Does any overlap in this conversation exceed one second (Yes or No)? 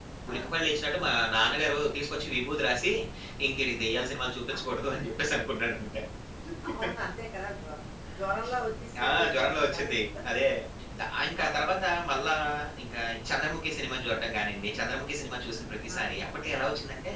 No